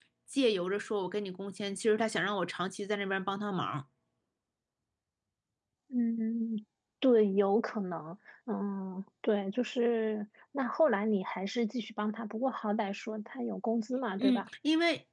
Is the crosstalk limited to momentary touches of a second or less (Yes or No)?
Yes